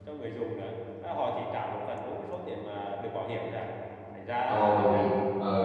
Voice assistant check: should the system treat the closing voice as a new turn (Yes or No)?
Yes